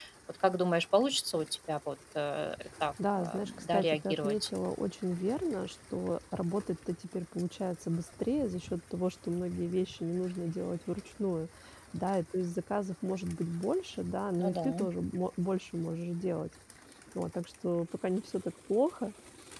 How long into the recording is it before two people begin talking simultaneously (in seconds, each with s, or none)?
3.1 s